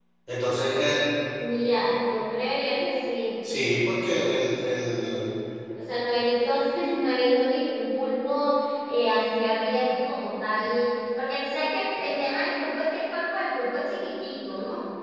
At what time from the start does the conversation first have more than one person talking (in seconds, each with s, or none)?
none